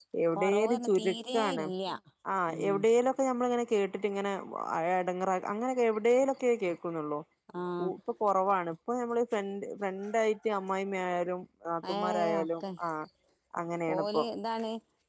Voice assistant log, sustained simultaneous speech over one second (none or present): present